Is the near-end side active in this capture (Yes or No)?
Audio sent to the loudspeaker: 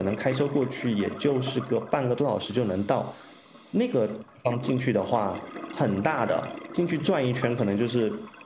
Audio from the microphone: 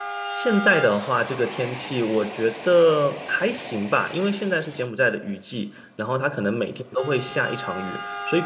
Yes